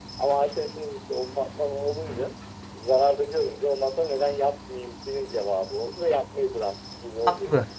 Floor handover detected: Yes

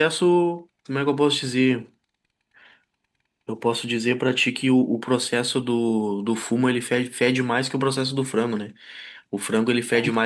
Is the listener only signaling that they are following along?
Yes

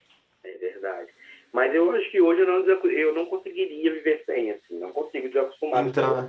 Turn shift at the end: No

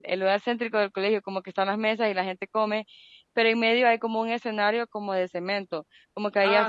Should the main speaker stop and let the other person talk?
Yes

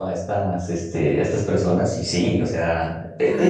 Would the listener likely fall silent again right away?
Yes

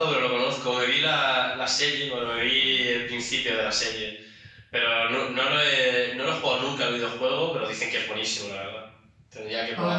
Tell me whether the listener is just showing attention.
No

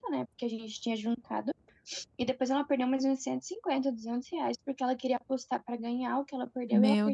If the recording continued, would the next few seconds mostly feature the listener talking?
Yes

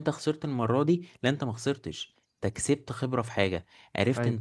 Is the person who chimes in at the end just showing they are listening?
Yes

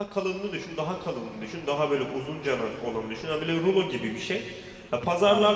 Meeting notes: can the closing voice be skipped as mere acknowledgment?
Yes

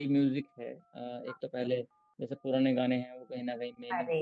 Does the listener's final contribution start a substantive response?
No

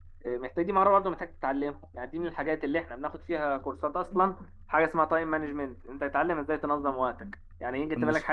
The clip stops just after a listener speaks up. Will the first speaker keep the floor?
Yes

